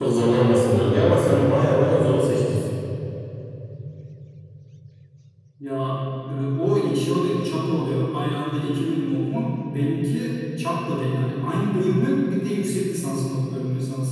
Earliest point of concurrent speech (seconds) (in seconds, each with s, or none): none